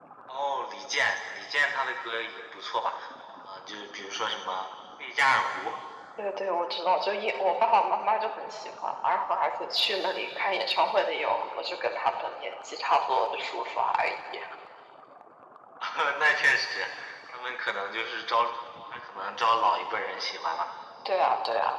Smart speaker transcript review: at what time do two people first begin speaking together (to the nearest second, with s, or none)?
none